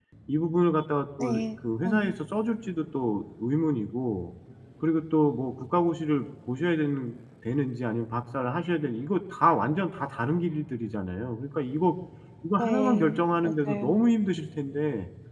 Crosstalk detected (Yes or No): Yes